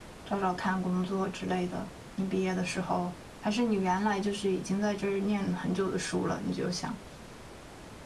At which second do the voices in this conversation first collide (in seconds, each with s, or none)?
none